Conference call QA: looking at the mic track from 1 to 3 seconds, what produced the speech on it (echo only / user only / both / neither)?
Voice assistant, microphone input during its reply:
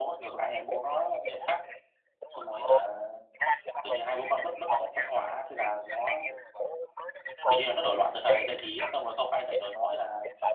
both